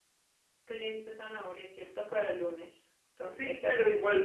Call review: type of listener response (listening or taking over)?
taking over